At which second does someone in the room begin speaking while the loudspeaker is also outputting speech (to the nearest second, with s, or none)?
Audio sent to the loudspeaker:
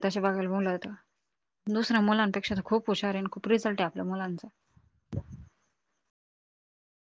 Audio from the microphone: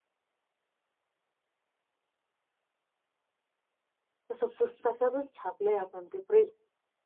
4 s